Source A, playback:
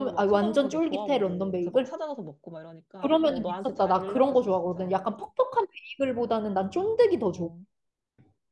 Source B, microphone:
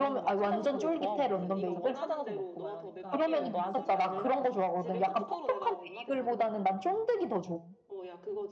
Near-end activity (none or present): present